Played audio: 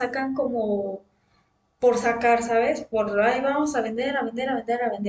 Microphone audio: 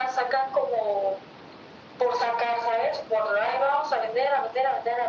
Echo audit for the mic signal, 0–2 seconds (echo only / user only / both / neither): echo only